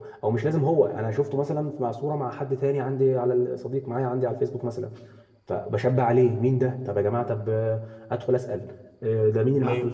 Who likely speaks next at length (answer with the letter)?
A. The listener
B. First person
B